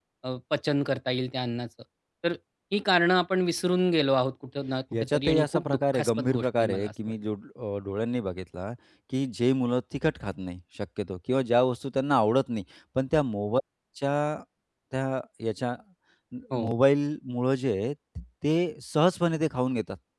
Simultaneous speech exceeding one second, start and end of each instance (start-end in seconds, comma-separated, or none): 4.9-6.9